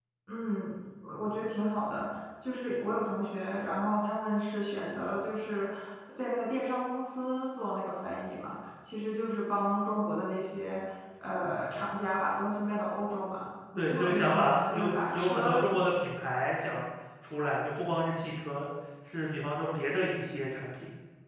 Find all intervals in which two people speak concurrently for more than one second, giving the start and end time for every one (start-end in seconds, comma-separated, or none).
13.8-15.7